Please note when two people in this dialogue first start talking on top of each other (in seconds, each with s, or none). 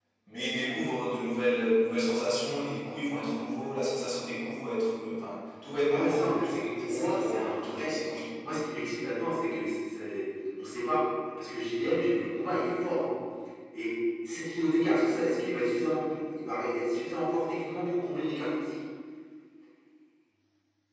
5.8 s